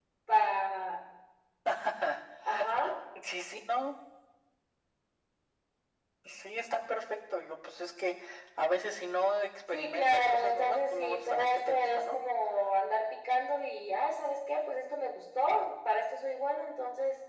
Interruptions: present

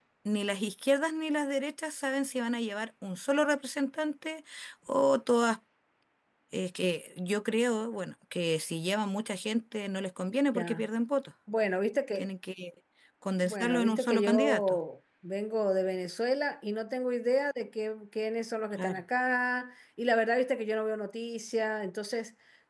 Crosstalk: present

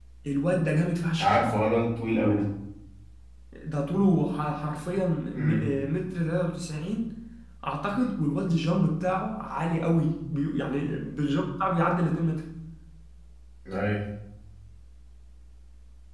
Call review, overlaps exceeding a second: none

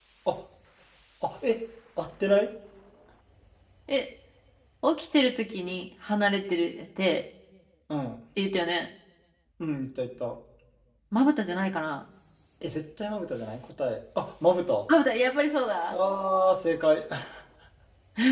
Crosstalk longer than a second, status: none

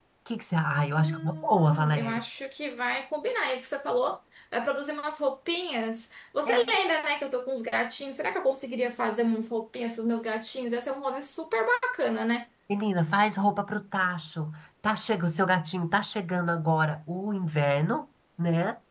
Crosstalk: present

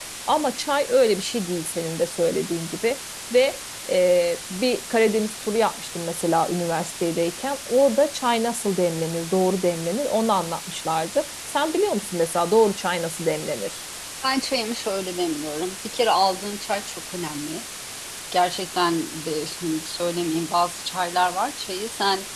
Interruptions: none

